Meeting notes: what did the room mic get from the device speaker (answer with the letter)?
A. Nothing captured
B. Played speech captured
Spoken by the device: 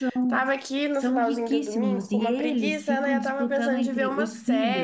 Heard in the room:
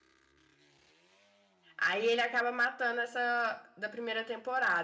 A